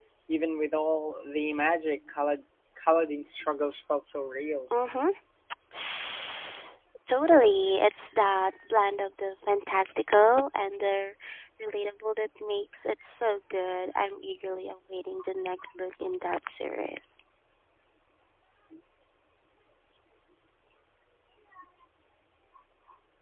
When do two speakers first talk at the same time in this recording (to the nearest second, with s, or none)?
none